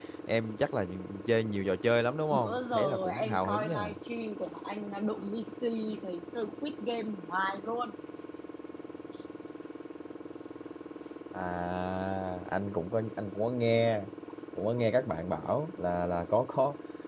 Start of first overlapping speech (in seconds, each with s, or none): 2.3 s